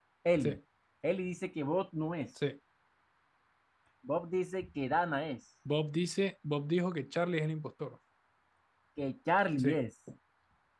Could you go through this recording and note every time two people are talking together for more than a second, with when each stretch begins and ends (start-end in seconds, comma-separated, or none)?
none